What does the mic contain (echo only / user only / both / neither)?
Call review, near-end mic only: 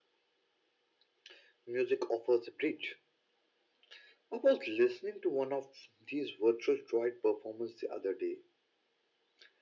echo only